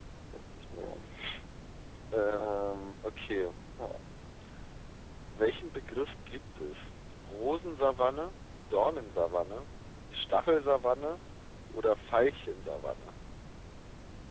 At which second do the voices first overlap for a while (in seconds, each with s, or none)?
none